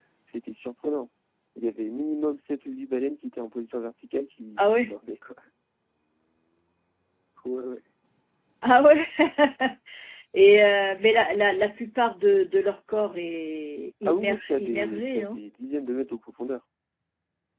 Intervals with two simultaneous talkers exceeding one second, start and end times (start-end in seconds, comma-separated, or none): 14.0-15.4